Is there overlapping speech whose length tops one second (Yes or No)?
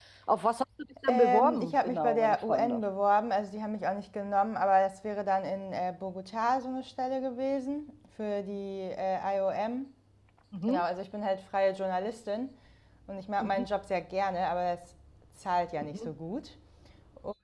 Yes